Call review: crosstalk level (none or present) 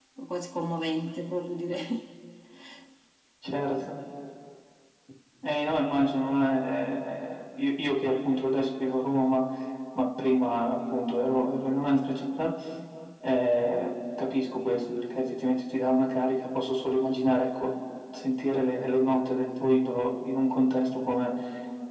none